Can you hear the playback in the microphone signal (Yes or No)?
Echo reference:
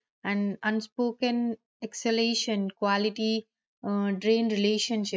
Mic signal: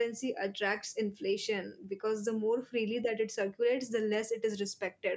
No